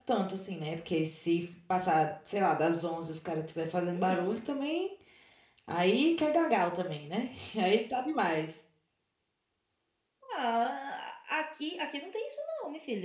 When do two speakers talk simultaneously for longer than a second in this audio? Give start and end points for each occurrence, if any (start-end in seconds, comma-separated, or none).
none